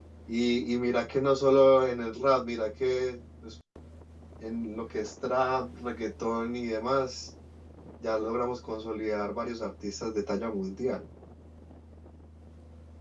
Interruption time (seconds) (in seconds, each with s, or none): none